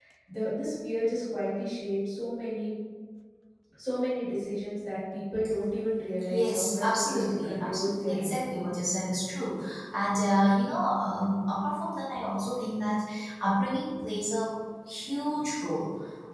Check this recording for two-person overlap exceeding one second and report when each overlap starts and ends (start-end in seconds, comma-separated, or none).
6.3-8.5